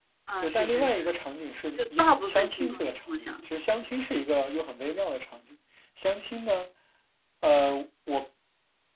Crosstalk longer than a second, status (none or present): present